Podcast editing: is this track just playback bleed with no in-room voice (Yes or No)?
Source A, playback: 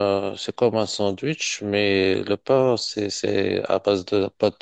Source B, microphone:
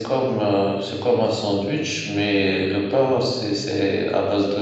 Yes